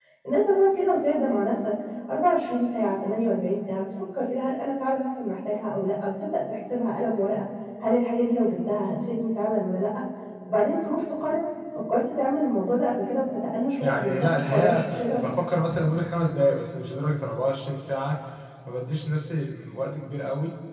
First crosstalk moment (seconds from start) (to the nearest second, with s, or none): 14 s